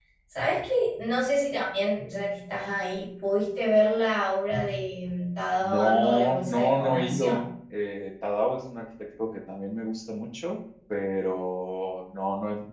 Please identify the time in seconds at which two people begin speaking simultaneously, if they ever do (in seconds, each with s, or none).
5.6 s